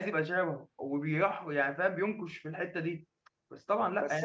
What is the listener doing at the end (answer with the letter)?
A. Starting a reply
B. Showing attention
A